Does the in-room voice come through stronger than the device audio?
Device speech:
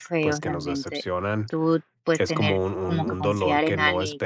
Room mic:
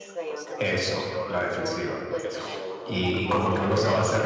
Yes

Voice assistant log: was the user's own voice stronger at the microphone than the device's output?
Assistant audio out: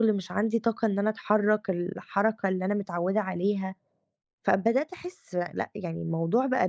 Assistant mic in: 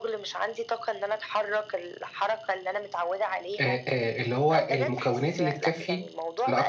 Yes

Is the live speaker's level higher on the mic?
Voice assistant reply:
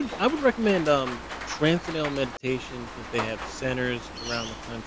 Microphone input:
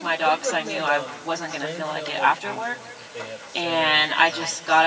Yes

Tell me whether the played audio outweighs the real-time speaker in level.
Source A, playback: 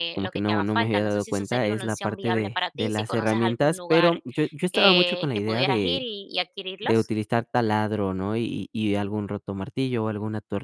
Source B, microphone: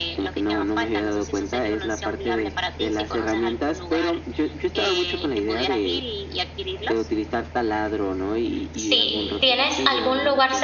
No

